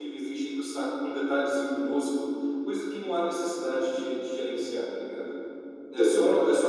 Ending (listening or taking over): listening